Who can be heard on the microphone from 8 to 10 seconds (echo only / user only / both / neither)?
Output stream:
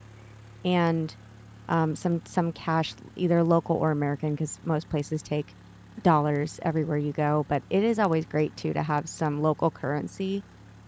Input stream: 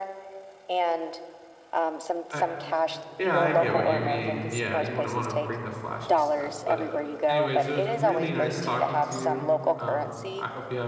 both